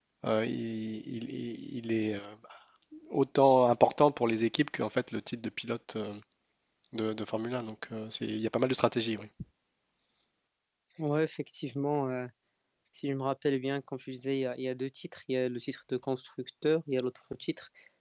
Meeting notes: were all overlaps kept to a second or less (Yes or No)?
Yes